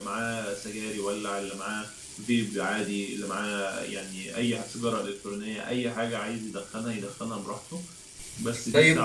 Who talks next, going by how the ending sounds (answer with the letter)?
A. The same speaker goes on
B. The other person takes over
B